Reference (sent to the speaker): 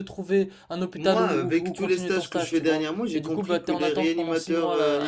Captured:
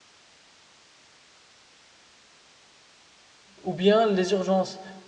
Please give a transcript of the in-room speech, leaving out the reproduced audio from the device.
ou bien les urgences.

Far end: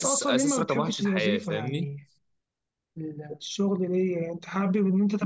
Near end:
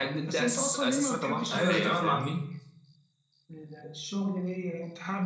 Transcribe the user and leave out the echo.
ايوه تتعامل مع

